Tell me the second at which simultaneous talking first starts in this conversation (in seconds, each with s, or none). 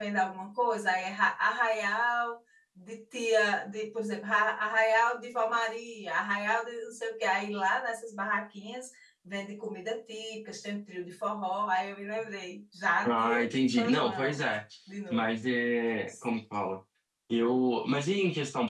13.0 s